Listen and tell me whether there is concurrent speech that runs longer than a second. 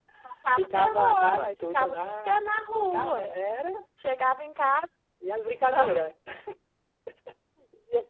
Yes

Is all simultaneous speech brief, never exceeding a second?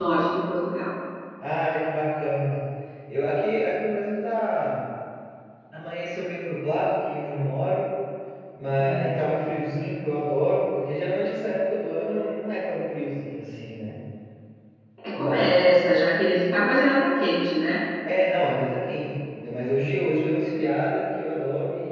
Yes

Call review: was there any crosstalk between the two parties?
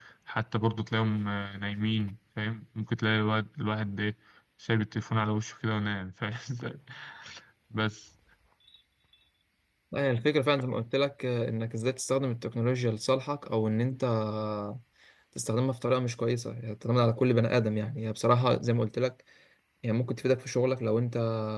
No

